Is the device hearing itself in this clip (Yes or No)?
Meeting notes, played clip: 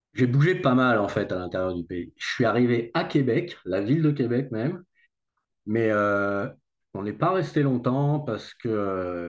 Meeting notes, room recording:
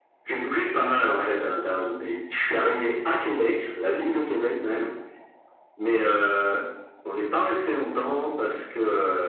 Yes